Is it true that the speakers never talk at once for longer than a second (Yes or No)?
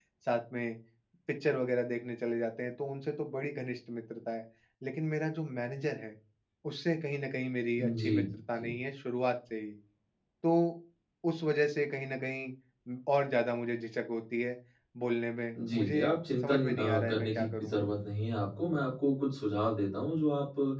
No